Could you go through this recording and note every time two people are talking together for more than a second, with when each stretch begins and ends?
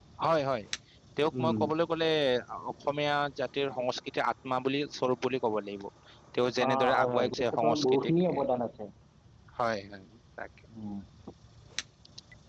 6.7-8.4

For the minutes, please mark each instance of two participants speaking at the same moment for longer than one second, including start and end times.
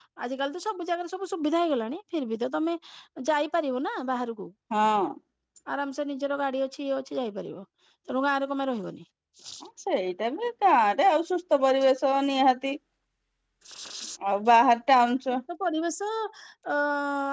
none

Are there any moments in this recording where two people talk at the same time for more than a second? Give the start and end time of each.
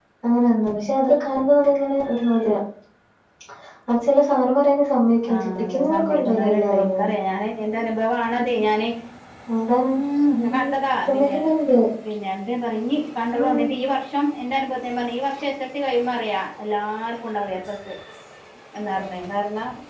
5.3-7.1

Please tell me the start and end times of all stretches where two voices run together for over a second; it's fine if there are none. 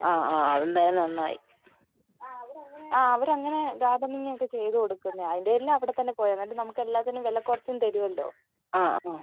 none

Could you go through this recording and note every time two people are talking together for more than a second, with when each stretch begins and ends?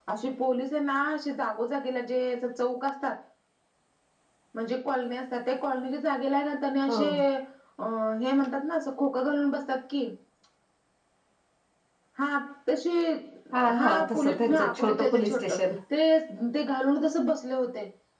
13.8-15.5

